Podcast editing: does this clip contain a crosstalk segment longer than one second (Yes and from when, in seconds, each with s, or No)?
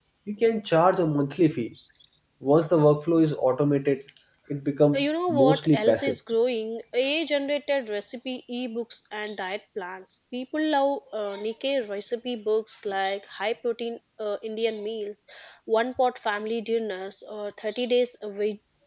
Yes, from 4.9 s